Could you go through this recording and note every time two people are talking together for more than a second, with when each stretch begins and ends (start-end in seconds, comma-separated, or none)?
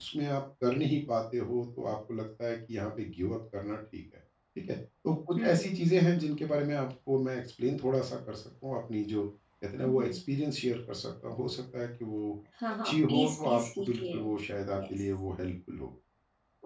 12.8-14.2